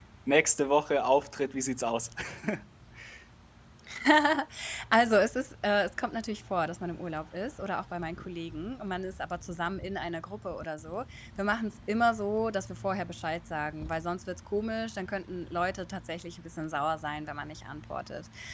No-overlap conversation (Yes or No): Yes